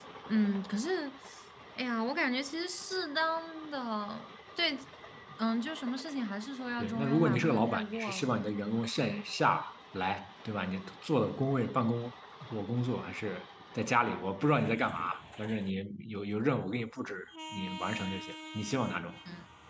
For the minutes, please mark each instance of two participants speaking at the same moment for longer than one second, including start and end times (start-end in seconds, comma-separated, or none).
6.8-8.3